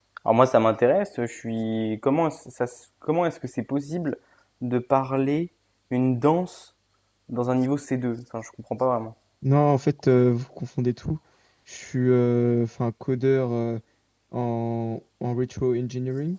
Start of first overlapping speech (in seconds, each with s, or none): none